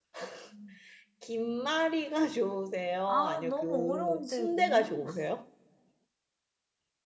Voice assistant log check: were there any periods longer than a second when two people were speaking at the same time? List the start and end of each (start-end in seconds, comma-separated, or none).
3.1-5.0